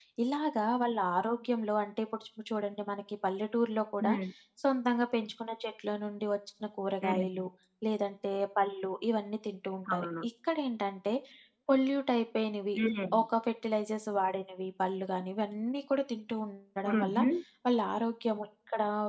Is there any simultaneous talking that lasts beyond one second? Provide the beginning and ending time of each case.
none

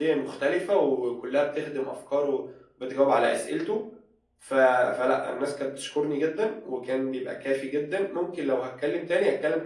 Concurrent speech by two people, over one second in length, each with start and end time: none

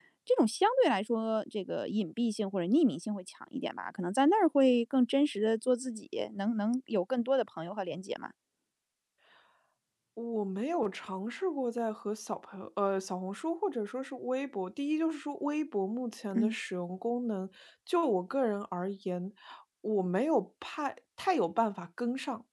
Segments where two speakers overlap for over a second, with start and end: none

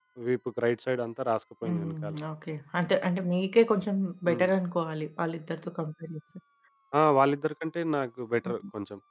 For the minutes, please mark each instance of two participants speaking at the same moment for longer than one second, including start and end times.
none

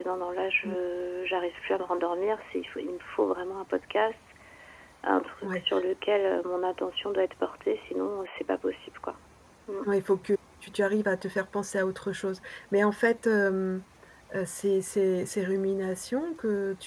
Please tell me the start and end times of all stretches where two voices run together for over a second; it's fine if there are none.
none

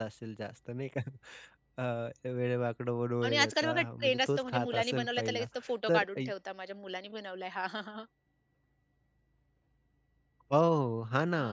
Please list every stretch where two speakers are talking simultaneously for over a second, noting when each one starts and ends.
3.2-5.5

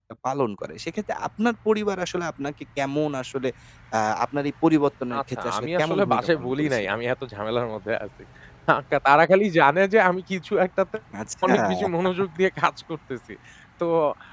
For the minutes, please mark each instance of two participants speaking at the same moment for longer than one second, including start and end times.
5.2-6.9

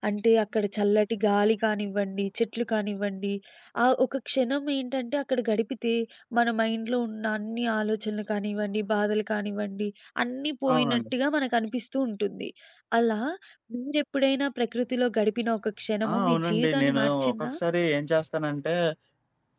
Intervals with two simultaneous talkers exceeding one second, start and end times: 16.3-17.5

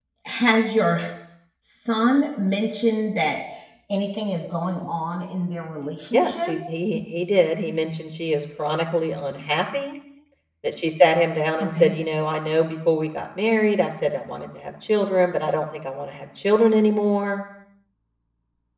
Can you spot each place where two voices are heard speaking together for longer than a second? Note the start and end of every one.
none

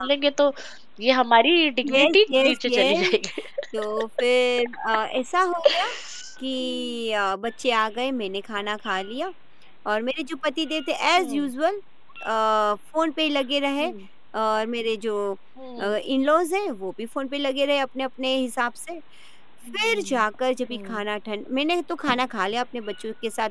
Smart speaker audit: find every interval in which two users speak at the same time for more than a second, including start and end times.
1.9-3.1

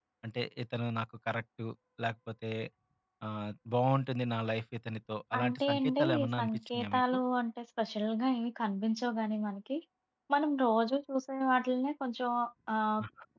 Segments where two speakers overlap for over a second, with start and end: 5.4-7.2

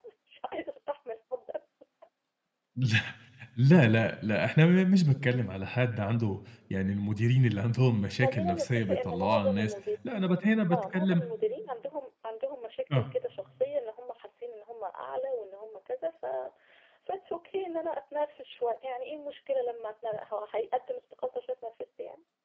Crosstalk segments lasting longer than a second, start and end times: 8.2-9.7

